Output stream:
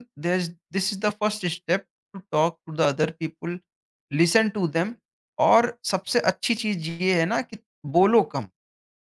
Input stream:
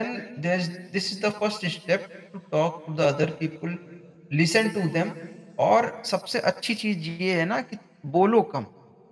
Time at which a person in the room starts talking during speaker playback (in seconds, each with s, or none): none